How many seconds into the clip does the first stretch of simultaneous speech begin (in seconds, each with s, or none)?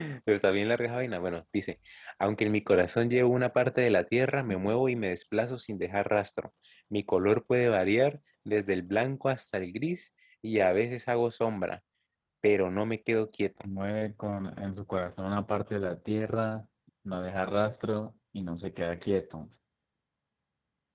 none